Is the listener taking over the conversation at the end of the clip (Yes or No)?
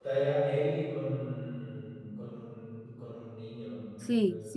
Yes